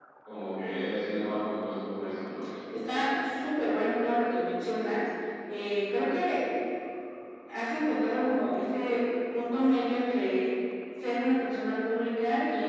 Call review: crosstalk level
none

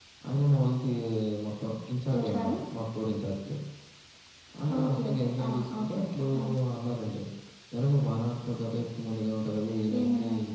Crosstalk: present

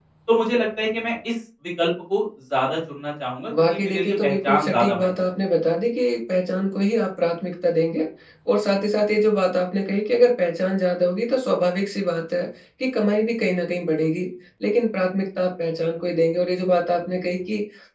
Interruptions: present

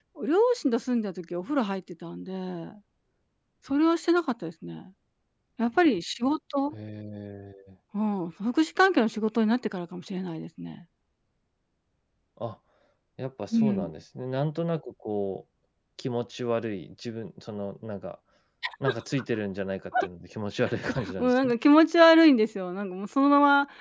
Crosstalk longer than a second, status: none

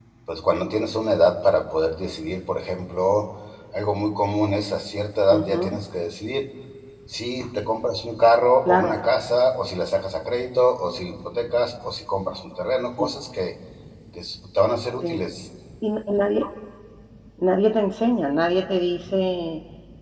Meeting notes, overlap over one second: none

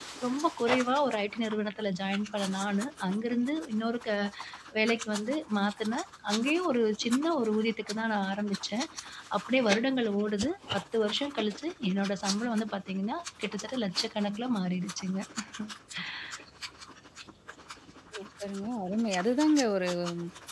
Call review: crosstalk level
none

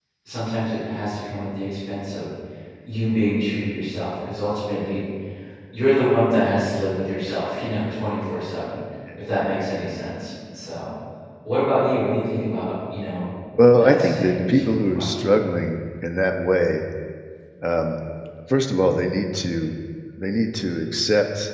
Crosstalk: present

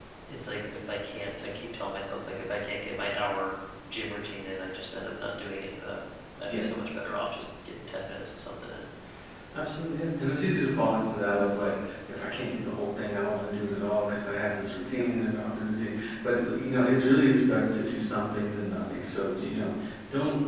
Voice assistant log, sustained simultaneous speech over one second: none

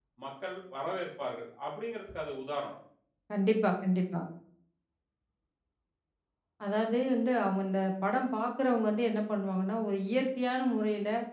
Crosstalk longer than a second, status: none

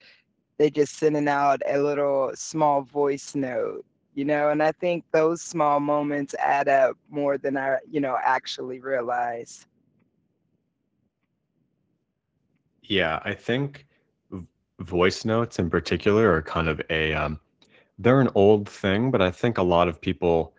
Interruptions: none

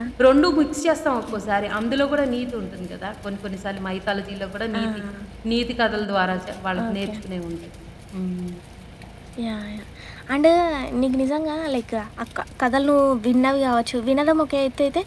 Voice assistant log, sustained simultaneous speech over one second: none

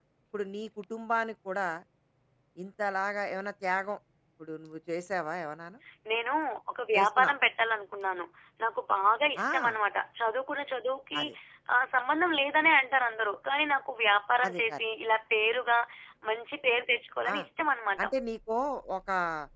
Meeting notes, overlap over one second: none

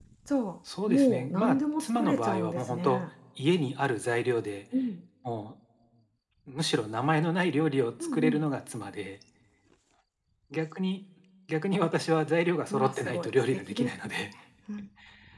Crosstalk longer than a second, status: present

